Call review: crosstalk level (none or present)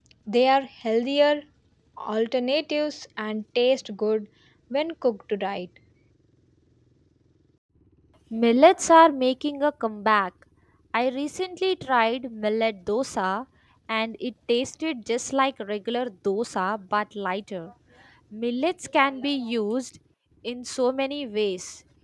none